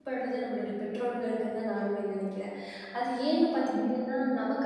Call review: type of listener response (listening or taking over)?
listening